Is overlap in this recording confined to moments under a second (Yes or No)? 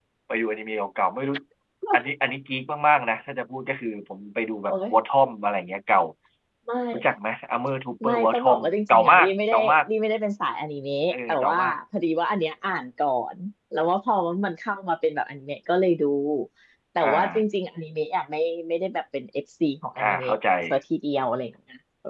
No